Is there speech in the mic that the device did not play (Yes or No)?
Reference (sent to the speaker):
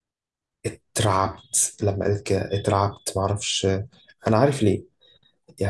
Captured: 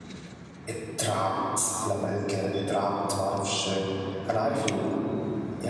No